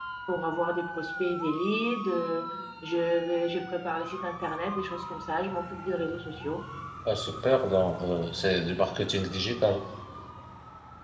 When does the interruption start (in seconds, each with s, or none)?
none